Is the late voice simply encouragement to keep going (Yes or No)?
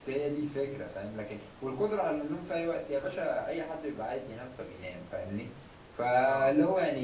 Yes